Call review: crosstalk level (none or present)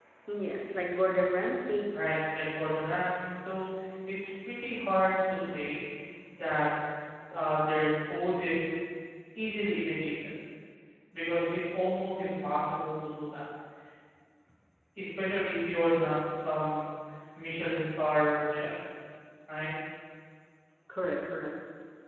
none